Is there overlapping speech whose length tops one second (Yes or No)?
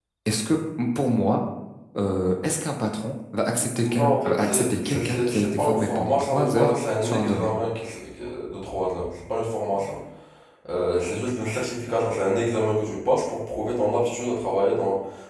Yes